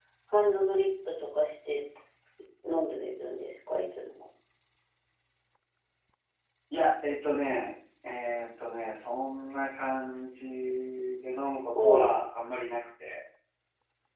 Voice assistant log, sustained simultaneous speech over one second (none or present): none